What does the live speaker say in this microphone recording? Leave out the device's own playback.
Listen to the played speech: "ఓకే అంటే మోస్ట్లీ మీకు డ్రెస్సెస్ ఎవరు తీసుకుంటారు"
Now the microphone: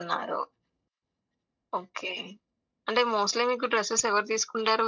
none

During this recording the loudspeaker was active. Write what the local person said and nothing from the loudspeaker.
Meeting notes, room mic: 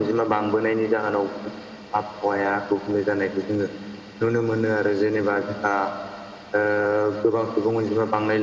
none

